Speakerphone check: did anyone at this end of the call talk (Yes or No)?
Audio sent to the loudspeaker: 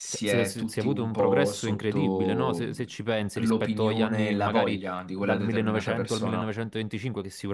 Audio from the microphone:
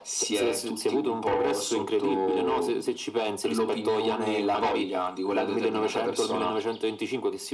No